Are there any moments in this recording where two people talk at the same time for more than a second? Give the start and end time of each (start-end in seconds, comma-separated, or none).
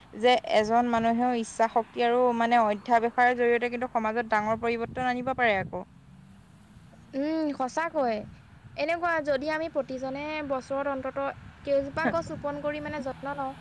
none